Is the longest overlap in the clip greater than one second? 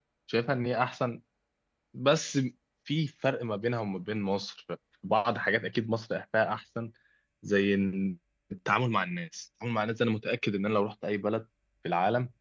No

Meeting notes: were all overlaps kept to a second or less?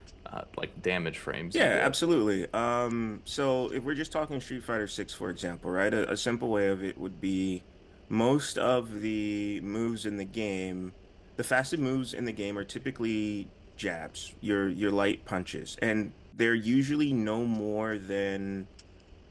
Yes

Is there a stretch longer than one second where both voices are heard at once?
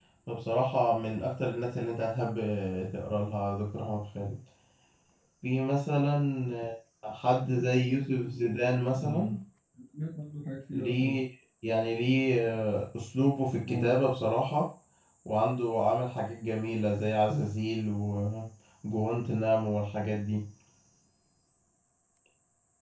No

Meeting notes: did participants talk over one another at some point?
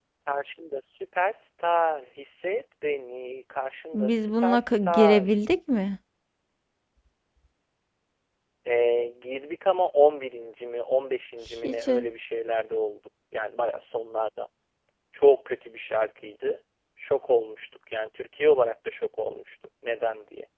Yes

